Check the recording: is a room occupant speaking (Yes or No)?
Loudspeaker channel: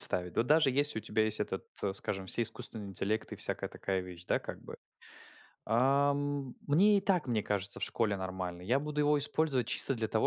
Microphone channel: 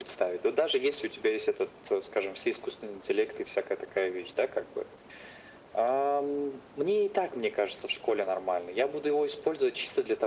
No